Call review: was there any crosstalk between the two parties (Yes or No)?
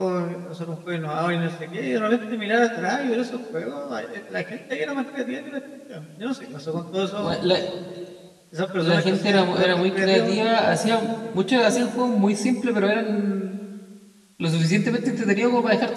Yes